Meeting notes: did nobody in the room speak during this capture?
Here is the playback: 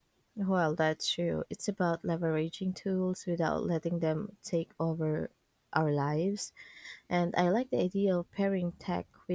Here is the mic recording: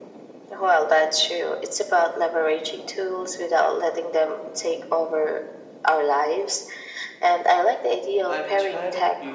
No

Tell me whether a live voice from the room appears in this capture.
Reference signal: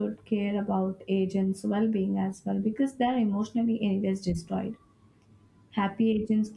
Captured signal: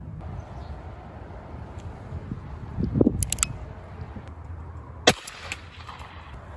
No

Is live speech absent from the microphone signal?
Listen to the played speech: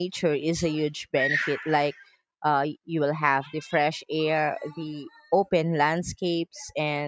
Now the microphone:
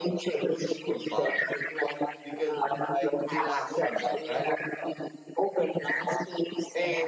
No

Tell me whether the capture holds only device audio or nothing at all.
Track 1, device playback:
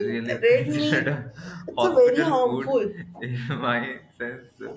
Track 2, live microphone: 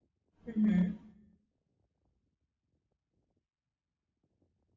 No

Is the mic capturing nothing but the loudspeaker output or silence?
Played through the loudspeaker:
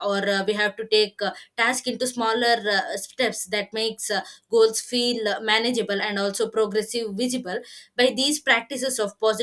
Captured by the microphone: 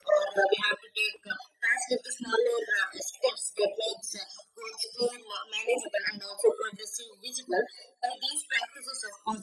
Yes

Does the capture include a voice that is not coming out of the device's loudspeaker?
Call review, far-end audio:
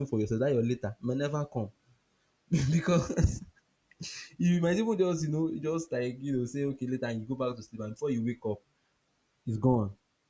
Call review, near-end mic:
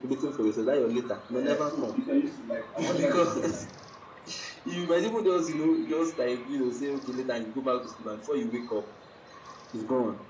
Yes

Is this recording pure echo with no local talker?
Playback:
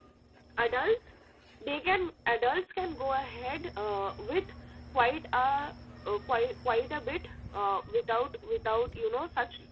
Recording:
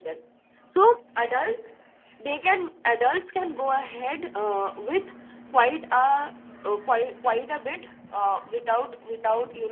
No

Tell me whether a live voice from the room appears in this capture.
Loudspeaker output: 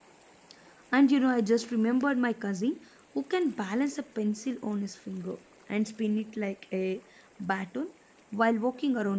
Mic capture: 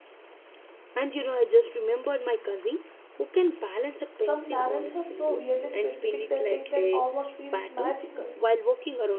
Yes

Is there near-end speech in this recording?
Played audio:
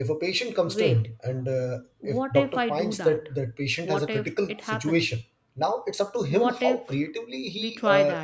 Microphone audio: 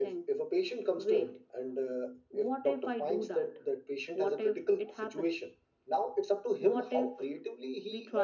No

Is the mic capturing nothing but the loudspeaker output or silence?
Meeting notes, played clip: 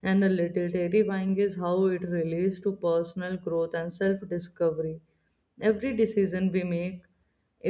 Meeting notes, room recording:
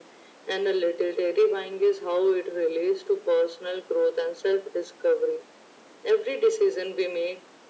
Yes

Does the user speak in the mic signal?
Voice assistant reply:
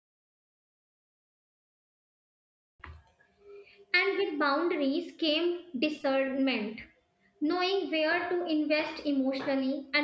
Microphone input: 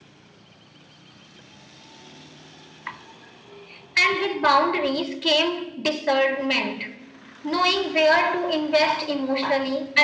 No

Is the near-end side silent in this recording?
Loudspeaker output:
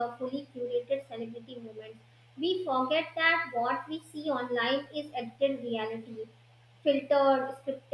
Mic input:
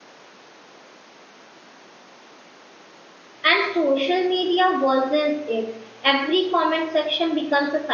No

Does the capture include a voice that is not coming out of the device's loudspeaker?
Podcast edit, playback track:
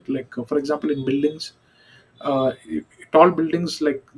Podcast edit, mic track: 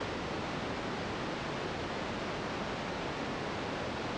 No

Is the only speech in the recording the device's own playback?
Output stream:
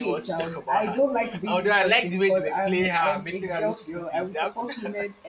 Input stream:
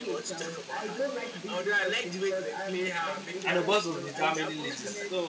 No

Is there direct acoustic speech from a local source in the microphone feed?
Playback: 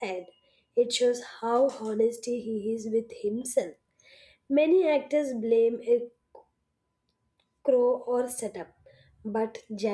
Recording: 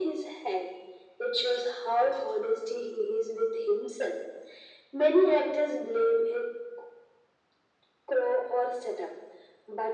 No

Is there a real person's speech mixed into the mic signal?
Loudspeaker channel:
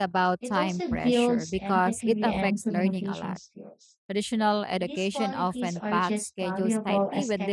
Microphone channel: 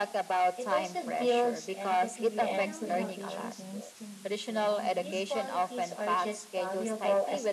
Yes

